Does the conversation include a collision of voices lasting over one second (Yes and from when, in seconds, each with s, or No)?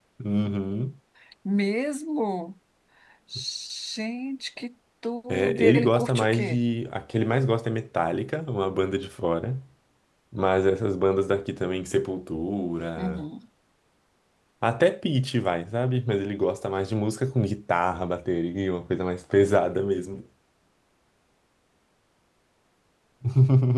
Yes, from 5.3 s